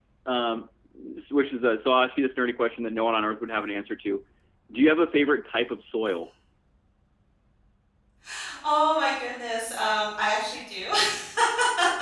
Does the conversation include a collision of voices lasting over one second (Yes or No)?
No